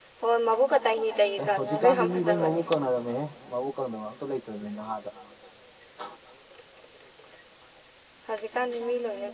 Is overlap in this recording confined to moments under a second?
No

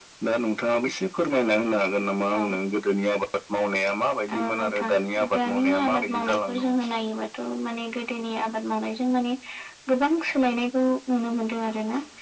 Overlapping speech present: Yes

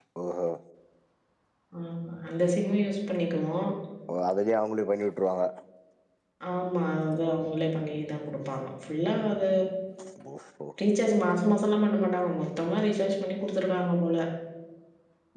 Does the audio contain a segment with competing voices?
No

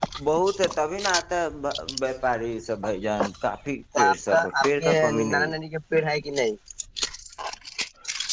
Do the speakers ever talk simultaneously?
Yes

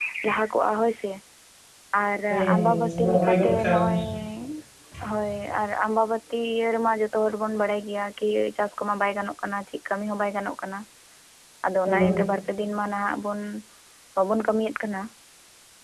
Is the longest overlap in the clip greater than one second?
Yes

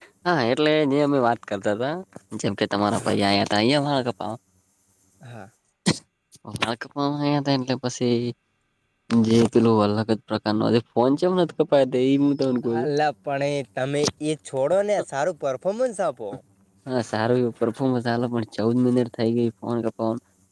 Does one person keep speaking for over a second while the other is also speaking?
No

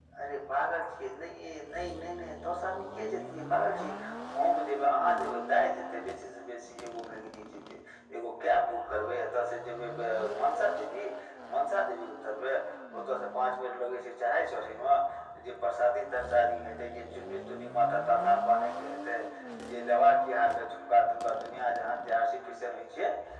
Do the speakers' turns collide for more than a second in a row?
No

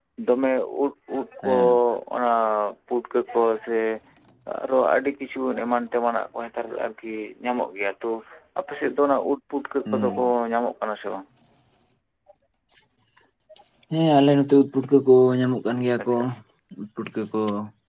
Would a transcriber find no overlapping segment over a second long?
Yes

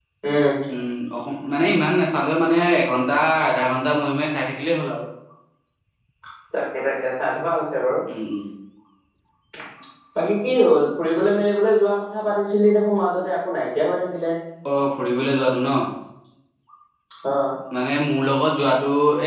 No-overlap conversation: Yes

